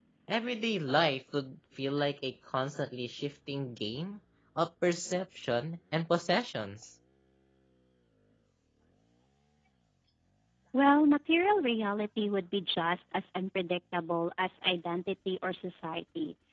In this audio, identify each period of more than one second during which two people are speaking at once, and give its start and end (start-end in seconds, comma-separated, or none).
none